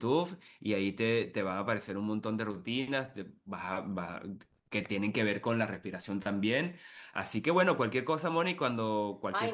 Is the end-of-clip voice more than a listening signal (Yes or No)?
Yes